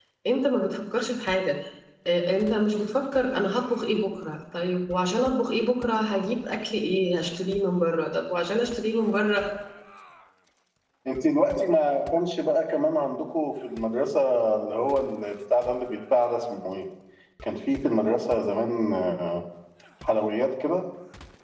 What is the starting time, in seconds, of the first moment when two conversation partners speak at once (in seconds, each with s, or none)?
none